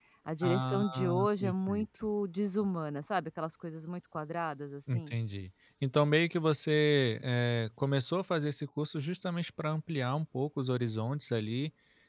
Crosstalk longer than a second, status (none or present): present